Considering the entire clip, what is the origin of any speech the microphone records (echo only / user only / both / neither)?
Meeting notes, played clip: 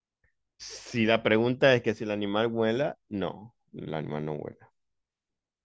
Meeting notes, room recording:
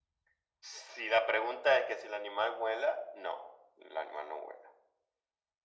echo only